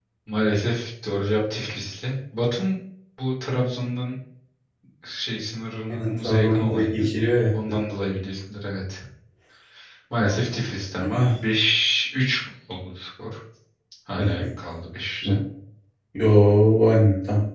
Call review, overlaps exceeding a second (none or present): present